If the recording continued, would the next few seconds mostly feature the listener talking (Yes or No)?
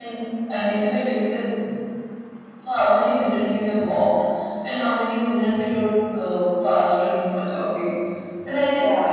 No